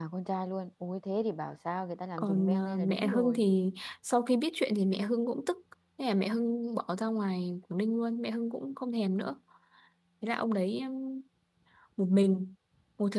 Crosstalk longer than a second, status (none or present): present